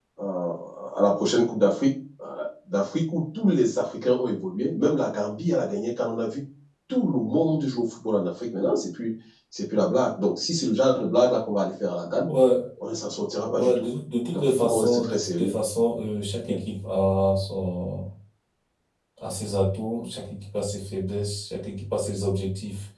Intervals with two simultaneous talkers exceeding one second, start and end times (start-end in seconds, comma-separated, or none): 14.3-15.5